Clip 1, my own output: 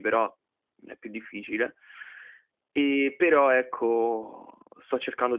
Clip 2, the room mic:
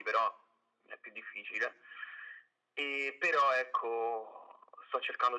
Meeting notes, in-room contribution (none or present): none